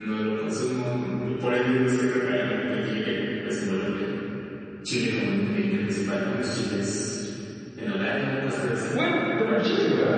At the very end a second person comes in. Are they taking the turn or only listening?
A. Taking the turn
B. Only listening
A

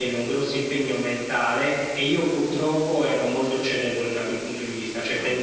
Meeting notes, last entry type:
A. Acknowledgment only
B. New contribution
A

